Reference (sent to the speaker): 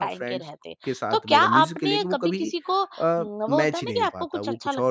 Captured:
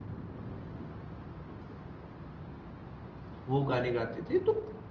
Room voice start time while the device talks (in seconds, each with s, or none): 3.5 s